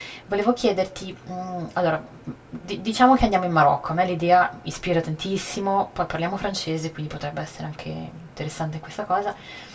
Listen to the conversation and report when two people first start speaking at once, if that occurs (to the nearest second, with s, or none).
none